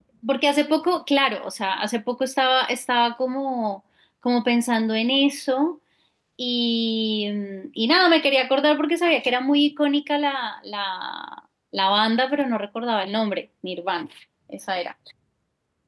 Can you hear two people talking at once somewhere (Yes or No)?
No